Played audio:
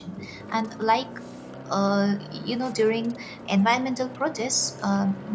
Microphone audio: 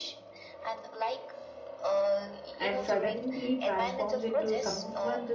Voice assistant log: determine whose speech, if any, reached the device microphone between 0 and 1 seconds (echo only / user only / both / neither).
echo only